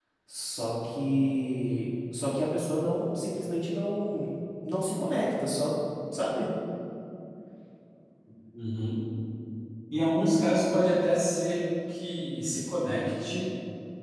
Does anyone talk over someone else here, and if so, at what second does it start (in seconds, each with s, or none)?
none